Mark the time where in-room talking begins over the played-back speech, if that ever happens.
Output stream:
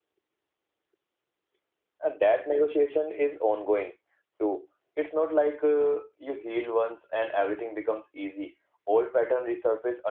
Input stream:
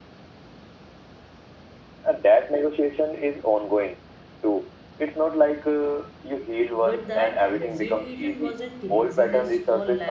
6.7 s

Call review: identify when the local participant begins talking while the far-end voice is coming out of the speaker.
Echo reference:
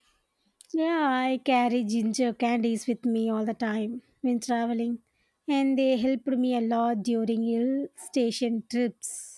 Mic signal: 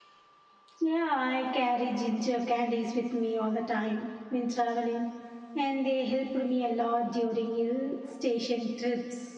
none

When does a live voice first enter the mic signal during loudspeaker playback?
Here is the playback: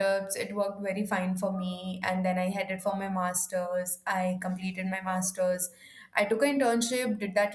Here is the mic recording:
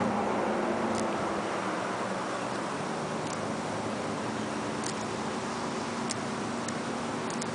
none

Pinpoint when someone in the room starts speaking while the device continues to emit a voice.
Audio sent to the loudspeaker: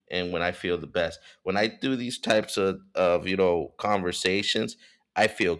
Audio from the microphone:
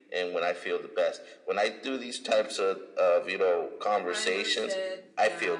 4.0 s

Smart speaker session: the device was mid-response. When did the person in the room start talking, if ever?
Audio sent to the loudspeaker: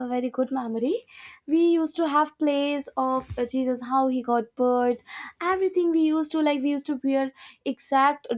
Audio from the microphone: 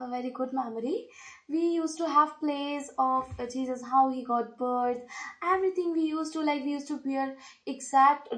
none

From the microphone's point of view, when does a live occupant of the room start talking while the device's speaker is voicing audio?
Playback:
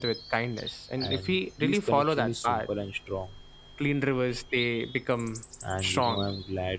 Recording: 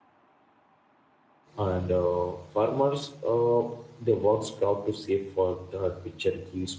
1.6 s

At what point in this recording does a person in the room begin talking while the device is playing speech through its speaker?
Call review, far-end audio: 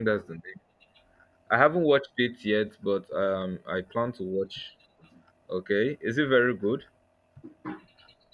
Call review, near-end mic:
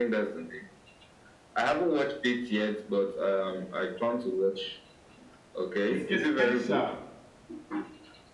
5.9 s

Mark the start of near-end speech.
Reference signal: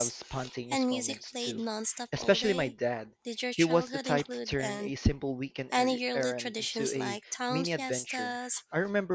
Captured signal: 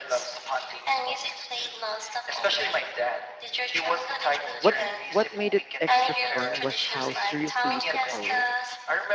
4.6 s

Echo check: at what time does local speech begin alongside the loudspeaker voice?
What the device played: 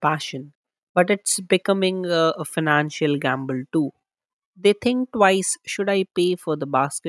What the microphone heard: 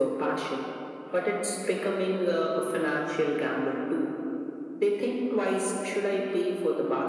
none

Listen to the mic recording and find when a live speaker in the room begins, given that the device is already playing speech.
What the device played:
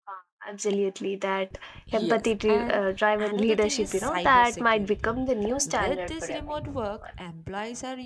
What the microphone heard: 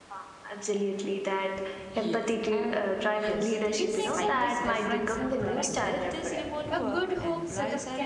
3.1 s

